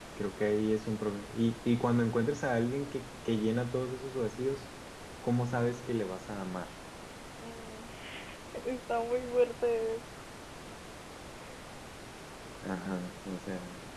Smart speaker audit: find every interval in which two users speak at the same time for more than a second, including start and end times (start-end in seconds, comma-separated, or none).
none